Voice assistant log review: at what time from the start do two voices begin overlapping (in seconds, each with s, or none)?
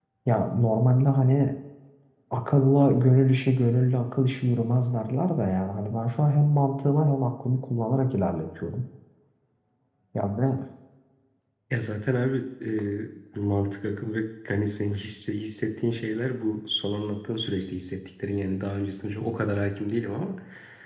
none